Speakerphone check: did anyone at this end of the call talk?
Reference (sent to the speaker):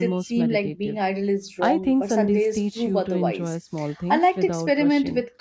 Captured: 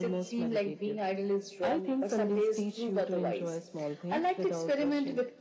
No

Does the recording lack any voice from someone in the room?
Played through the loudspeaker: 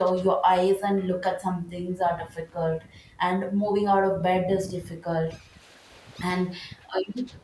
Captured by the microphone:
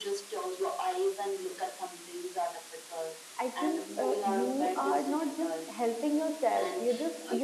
No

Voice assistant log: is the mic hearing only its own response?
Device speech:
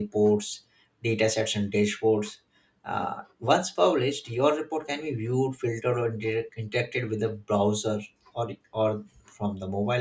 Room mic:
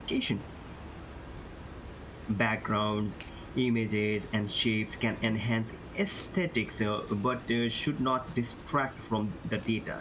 No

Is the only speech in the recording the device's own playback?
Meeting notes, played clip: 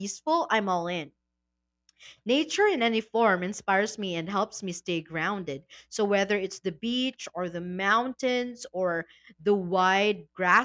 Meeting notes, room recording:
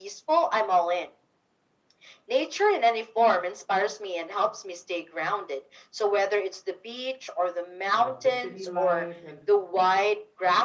No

